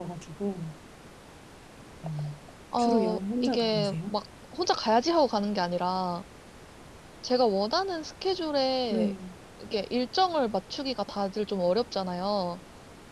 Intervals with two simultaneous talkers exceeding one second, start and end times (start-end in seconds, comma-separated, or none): 2.8-4.1